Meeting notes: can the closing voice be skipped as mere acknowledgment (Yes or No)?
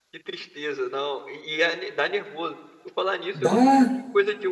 Yes